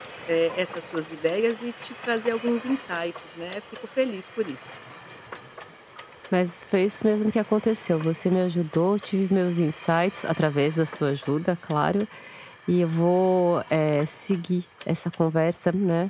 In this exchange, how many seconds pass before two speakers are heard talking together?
none

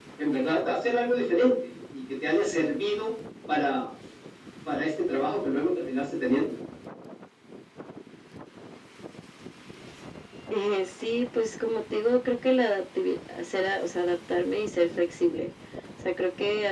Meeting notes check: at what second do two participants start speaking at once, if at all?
none

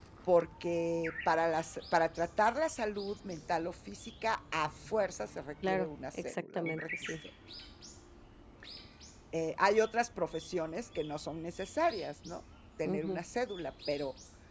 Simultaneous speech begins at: 5.7 s

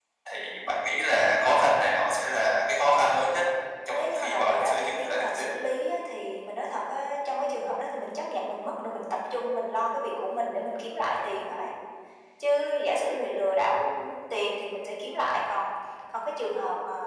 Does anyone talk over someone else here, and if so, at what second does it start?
3.9 s

